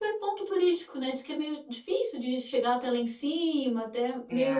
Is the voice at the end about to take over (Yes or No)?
No